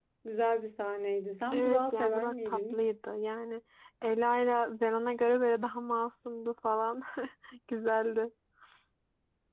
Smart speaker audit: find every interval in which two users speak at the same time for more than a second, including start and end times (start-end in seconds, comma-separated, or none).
1.5-2.8